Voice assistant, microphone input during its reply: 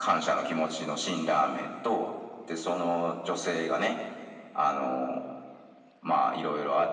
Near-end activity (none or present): none